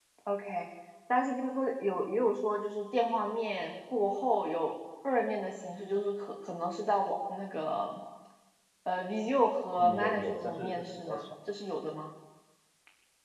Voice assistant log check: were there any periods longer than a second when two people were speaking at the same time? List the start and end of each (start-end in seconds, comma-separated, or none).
9.8-11.3